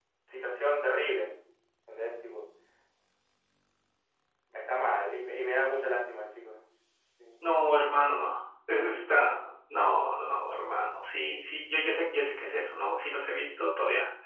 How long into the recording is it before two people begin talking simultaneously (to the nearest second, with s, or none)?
none